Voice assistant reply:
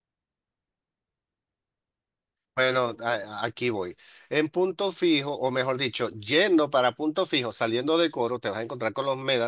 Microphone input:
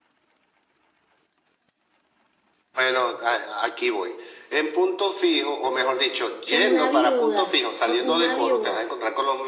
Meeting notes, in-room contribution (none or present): present